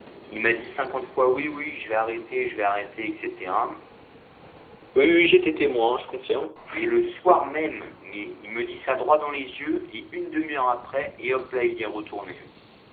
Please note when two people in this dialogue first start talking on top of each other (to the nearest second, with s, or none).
none